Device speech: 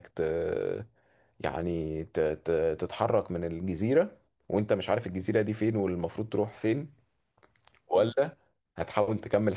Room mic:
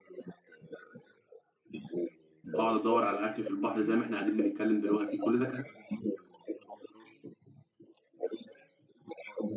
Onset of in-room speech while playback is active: 2.6 s

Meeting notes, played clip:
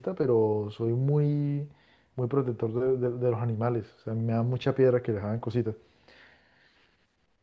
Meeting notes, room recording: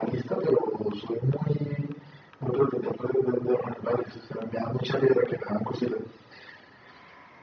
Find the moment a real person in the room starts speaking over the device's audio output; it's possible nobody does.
none

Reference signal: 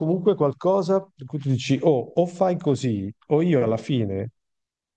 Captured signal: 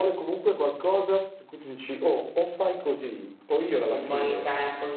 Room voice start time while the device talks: 3.9 s

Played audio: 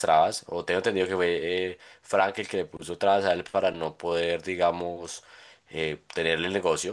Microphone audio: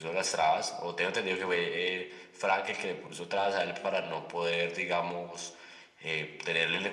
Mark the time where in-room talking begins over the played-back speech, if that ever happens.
none

